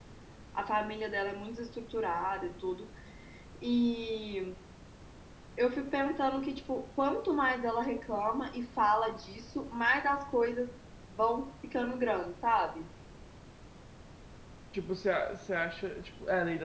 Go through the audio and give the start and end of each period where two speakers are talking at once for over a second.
none

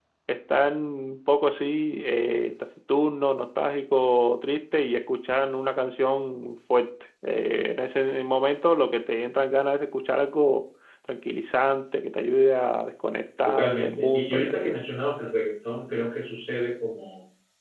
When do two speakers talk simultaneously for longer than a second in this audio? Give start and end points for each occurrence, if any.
13.4-14.8

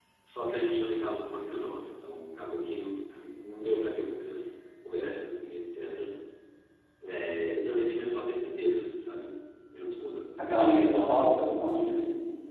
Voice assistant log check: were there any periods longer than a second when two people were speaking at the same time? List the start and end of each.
none

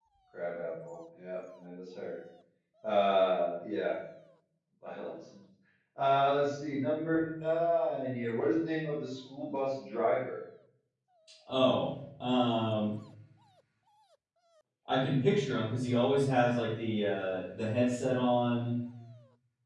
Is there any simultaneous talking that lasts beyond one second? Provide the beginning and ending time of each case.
none

